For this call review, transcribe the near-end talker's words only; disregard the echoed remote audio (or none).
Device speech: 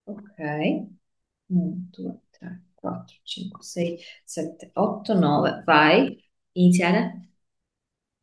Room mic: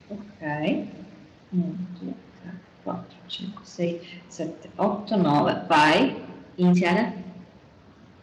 none